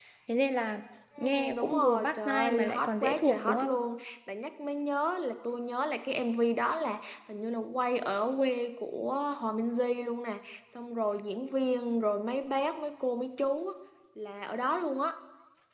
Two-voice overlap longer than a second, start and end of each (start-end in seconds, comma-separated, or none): 1.2-3.7